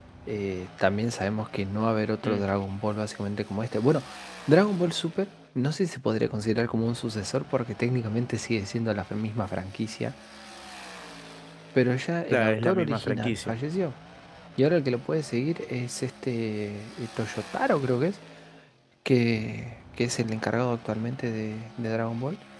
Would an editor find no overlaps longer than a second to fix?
No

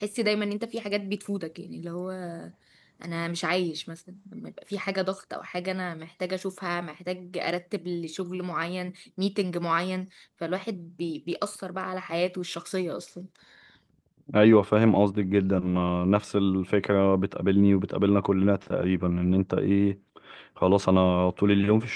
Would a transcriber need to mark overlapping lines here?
No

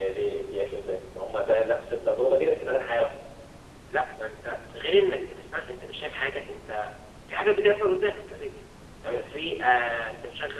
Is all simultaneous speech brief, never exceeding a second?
Yes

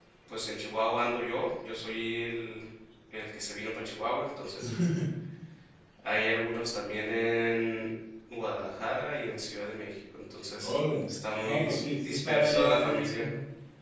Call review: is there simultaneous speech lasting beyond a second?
Yes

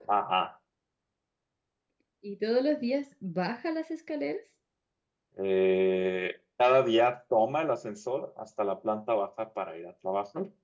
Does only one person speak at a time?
Yes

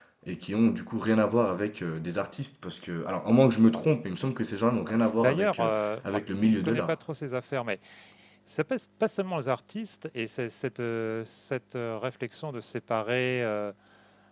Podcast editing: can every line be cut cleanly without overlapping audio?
No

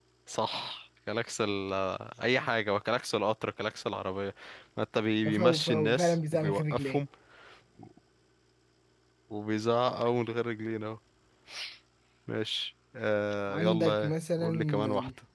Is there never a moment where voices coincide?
No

